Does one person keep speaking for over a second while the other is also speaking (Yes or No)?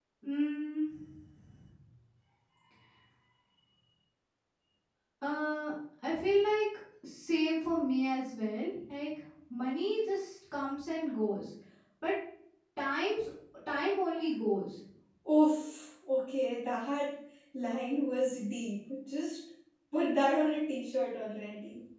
No